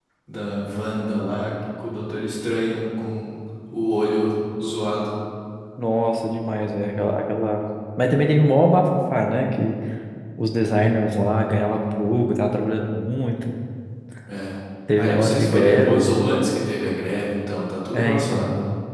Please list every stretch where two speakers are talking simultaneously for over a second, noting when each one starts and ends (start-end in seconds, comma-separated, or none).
15.0-16.2